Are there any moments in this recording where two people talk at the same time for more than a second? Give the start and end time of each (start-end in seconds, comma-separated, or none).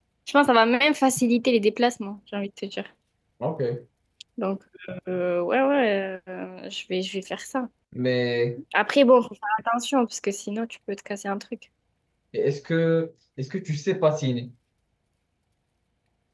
none